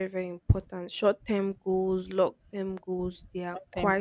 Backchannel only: Yes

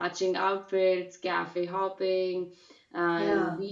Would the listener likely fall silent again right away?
Yes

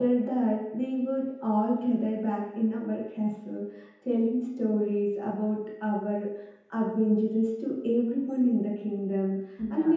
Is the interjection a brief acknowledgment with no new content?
Yes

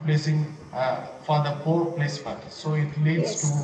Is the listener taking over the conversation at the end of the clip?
No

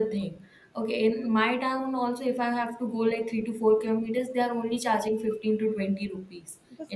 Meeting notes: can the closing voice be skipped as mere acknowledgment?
Yes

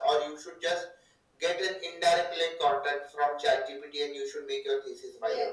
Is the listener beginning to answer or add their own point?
Yes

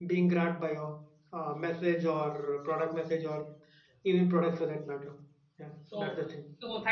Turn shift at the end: Yes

